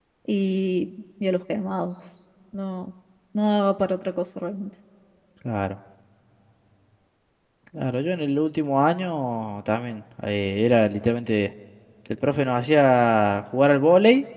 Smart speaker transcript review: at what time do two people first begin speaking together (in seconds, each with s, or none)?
none